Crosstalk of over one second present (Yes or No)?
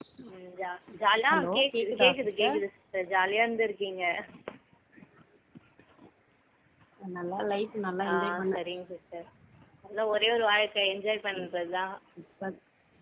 Yes